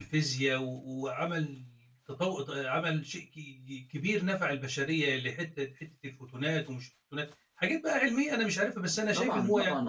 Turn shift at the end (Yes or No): Yes